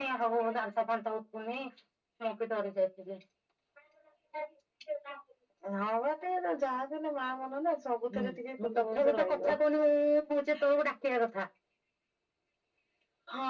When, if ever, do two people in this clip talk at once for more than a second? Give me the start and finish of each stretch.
8.2-9.5

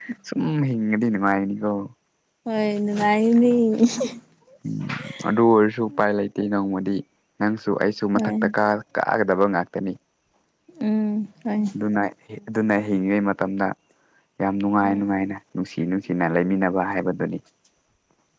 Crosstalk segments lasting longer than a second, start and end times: none

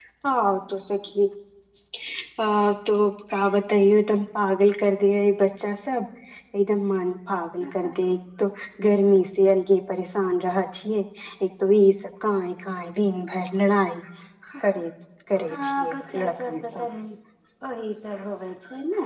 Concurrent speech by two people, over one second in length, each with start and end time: 15.5-16.8

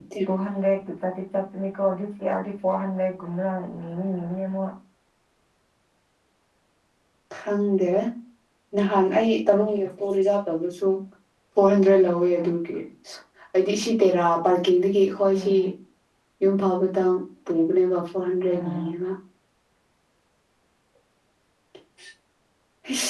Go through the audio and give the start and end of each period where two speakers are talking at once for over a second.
none

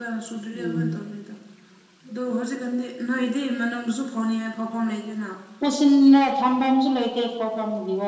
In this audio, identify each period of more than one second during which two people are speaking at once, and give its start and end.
none

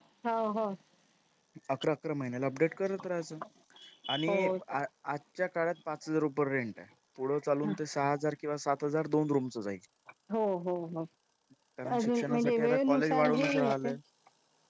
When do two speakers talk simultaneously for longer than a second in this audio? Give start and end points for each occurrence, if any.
12.0-14.0

